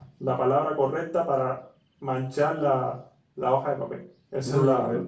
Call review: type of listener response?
taking over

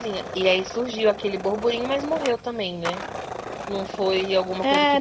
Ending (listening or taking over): taking over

